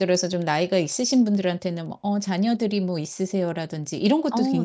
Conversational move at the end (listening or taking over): listening